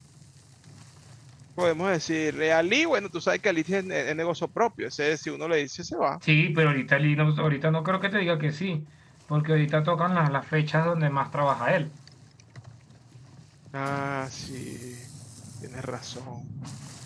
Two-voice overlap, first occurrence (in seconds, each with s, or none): none